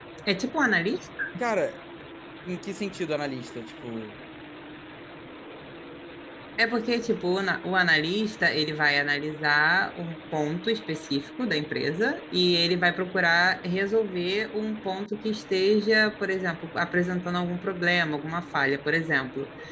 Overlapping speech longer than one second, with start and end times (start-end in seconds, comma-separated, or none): none